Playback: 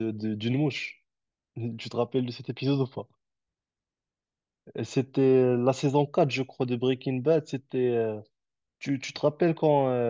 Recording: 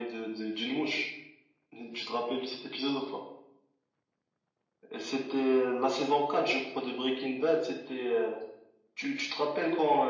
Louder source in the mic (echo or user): echo